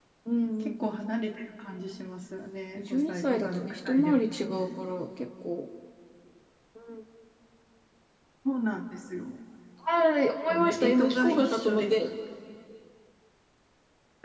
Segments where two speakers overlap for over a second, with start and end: 2.8-4.1, 10.5-11.9

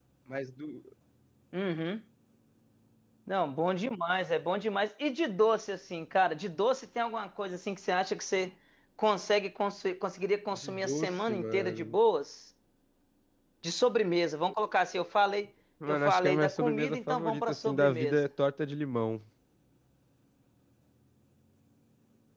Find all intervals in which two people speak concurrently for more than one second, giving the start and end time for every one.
10.5-11.9, 15.9-18.2

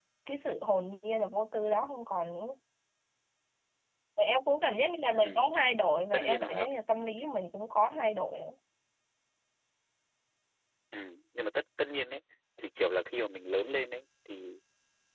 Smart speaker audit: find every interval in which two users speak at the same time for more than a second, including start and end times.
none

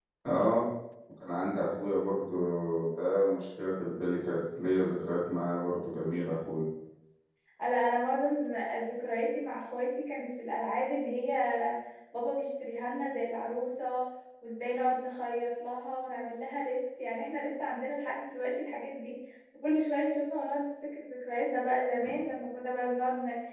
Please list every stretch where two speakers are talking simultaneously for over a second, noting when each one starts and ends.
none

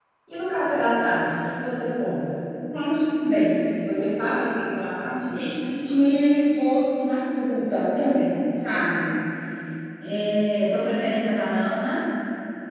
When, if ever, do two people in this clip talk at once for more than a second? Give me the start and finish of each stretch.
none

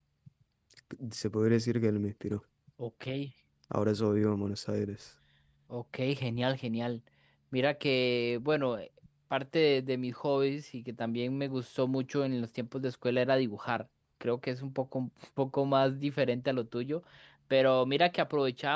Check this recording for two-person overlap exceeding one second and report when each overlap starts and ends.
none

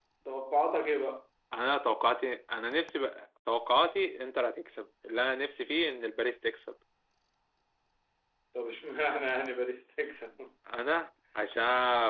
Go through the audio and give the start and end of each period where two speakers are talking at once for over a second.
none

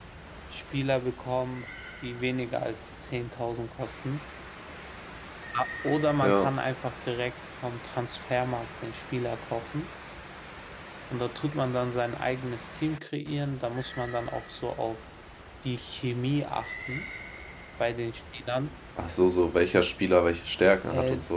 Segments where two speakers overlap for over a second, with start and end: none

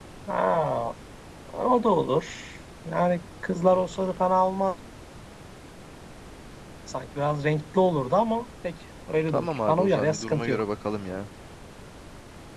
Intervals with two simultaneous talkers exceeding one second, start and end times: 9.3-10.6

